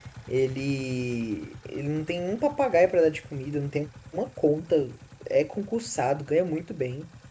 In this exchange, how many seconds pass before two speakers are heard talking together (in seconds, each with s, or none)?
none